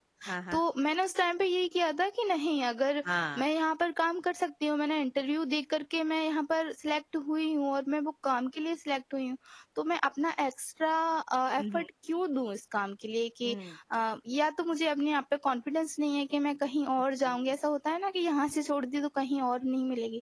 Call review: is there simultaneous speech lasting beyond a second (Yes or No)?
No